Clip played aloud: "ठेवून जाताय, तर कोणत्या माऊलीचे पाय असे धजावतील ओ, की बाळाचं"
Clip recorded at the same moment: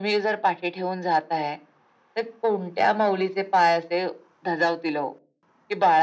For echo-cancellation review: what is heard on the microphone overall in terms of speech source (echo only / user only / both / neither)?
echo only